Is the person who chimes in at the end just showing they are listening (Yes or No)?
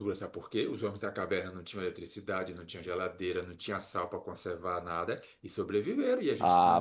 No